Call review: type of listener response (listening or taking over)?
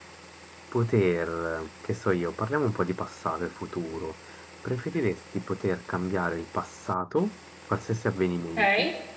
listening